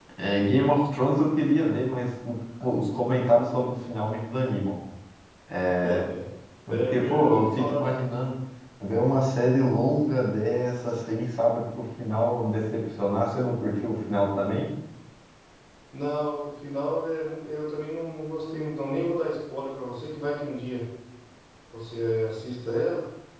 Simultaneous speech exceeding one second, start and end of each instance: 6.7-8.2

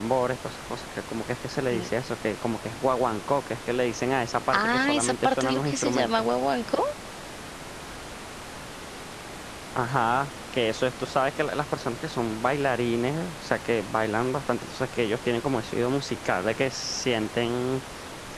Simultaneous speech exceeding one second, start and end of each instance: 4.5-6.1

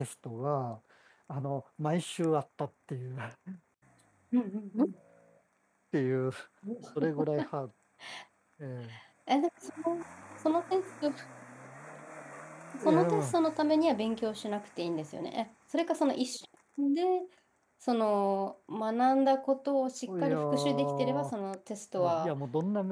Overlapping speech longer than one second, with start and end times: 20.1-21.3

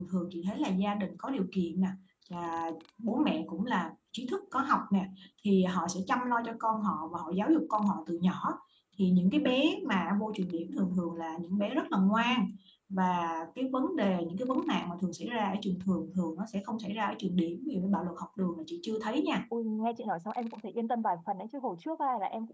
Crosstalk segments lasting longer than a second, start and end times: none

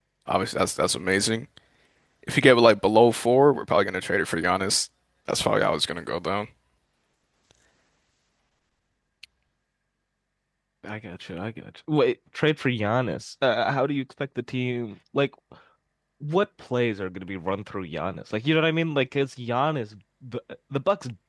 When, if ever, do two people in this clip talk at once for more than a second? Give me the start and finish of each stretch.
none

